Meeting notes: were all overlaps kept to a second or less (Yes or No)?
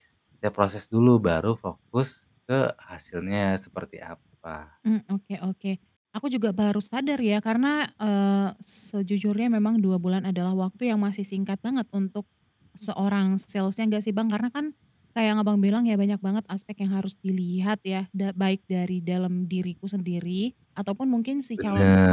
Yes